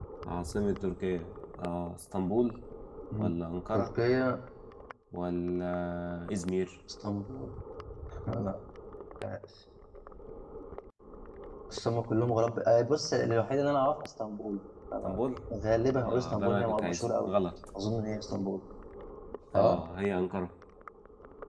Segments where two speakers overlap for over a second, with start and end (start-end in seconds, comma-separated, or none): 16.1-17.3